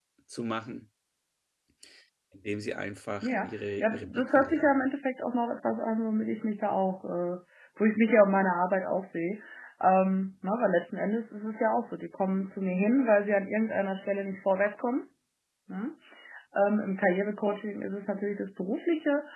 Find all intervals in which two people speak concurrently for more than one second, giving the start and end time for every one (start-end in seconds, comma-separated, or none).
3.2-4.9